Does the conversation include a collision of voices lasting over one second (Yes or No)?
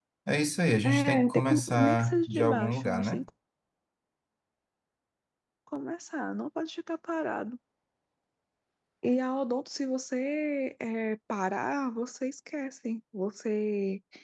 Yes